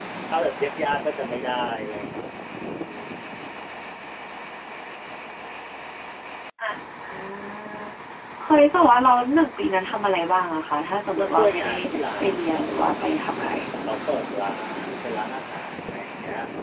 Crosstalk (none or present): present